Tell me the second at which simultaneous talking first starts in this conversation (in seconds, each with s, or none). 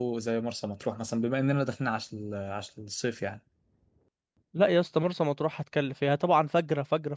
none